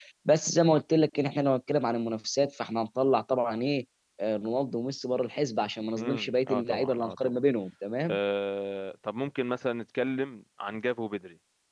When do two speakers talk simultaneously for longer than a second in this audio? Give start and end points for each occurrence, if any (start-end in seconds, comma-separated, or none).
6.0-7.4